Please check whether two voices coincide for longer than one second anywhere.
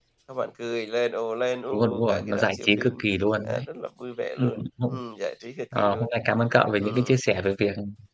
Yes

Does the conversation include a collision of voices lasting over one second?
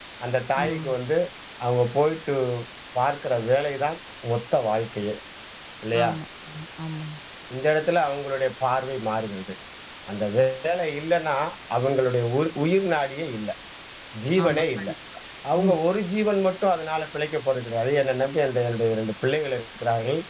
No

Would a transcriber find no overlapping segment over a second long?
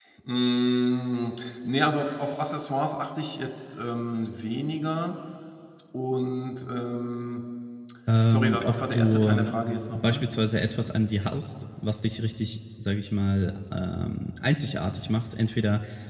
No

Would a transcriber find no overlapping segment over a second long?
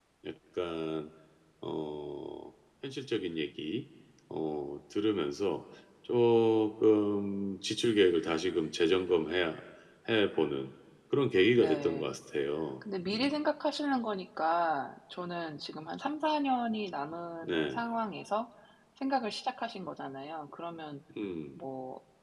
Yes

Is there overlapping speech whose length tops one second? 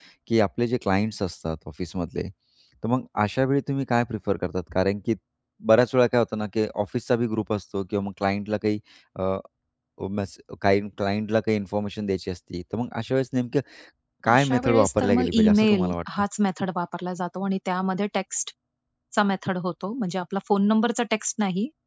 Yes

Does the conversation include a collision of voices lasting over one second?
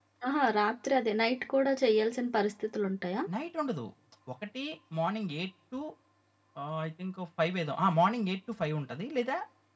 No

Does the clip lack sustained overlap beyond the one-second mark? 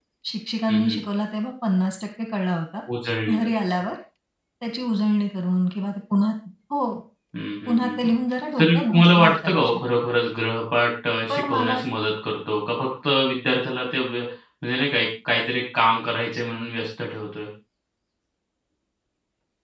No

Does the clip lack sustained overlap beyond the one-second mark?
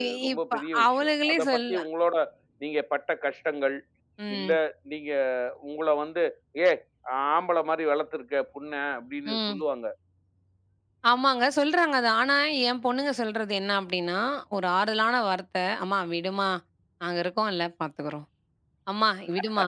No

